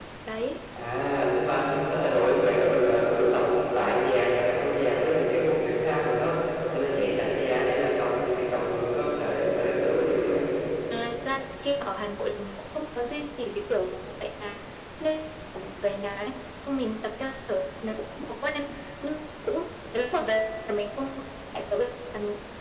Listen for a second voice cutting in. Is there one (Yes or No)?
No